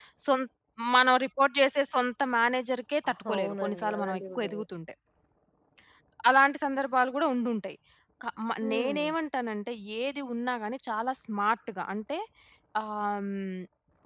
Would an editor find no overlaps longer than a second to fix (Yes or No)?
No